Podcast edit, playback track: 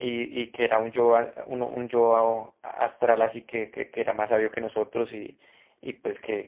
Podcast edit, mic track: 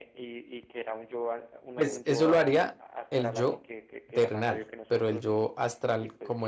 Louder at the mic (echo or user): user